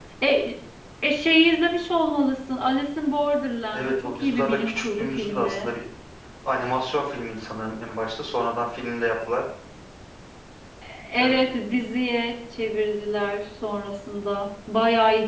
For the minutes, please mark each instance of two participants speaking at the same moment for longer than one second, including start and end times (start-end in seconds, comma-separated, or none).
3.7-5.7